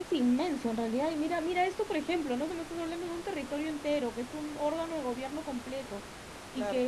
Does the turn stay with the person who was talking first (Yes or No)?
Yes